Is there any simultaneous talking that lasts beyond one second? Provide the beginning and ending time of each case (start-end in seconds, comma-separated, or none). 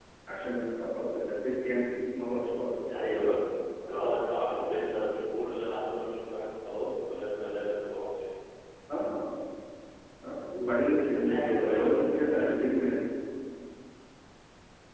11.1-12.7